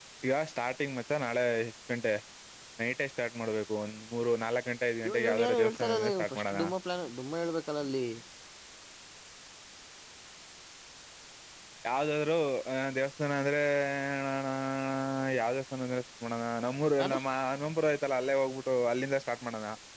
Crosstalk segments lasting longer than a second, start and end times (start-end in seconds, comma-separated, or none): 5.1-6.6